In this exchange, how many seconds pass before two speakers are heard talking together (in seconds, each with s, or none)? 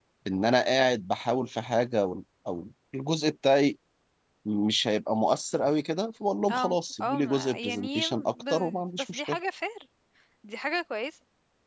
6.5 s